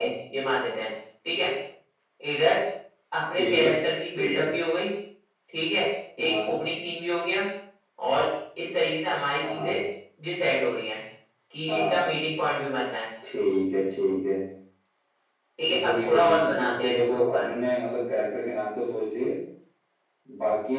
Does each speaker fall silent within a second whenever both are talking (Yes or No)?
No